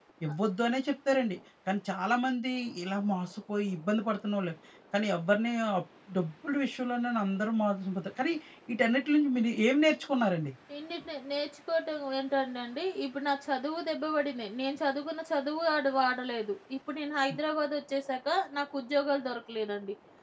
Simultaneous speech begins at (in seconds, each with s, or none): none